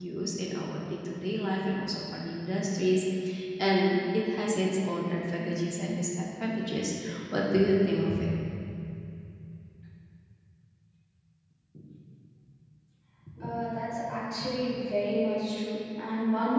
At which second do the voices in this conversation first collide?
none

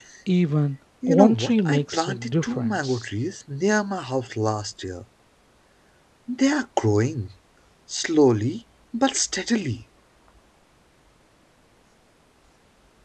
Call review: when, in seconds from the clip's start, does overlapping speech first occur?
1.1 s

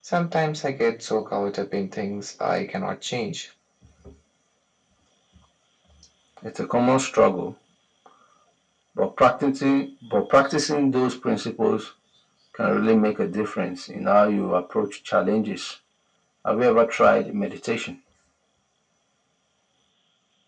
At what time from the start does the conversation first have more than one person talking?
none

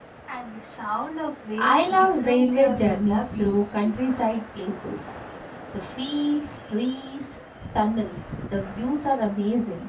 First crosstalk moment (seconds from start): 1.6 s

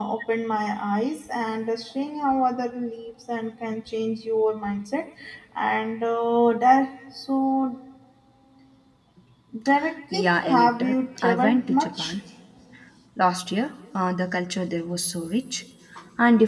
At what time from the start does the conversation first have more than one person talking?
10.1 s

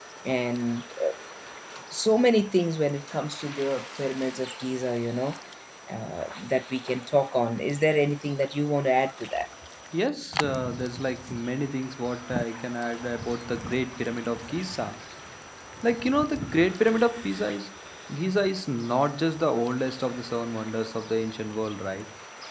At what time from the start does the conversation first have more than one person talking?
none

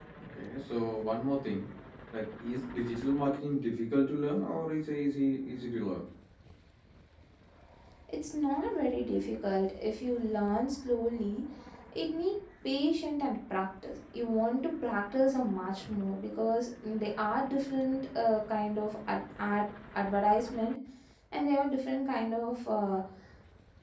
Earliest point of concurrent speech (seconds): none

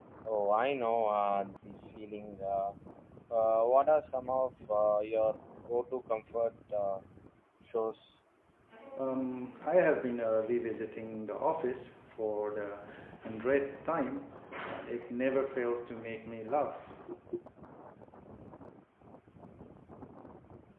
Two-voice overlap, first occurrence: none

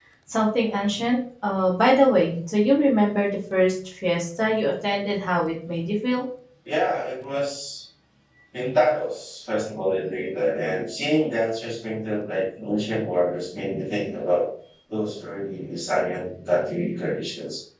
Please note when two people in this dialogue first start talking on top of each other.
none

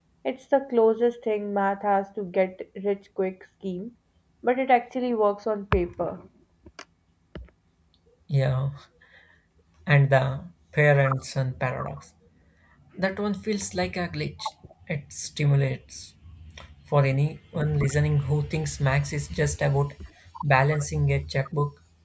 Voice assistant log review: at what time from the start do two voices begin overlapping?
none

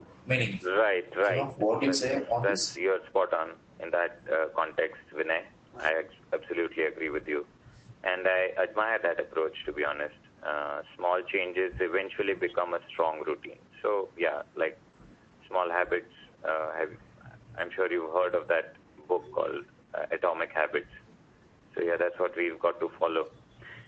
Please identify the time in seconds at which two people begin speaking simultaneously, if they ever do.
1.2 s

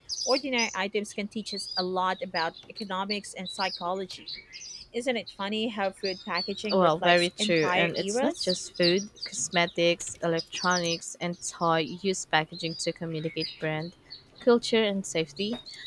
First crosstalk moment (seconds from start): 6.6 s

